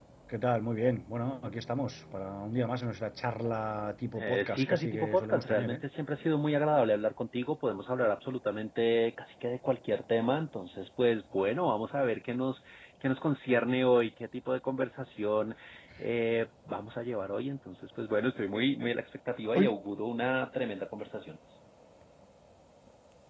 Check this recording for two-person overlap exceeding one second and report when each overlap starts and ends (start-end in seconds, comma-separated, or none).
4.1-5.8